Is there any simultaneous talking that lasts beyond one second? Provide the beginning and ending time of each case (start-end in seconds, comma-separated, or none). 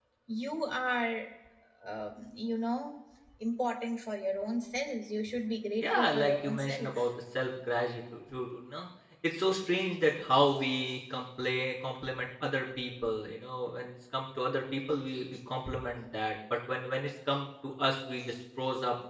5.8-7.1